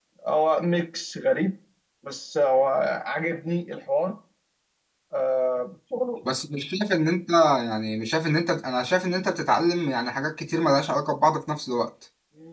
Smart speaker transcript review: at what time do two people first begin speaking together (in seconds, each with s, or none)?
none